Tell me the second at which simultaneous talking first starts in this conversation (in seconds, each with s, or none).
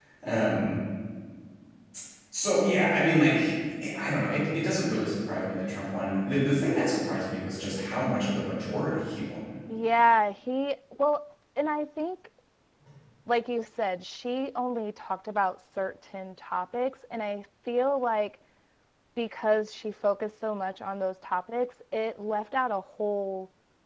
none